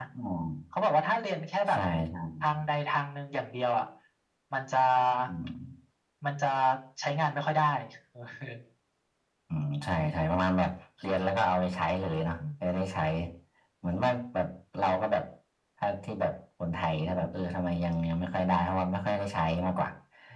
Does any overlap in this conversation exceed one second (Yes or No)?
No